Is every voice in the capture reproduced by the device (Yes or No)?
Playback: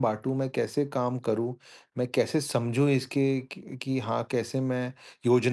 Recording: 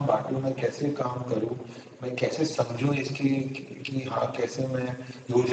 Yes